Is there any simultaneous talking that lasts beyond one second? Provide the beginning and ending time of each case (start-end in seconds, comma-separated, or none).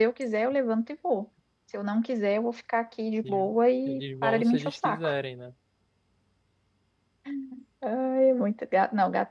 3.9-5.1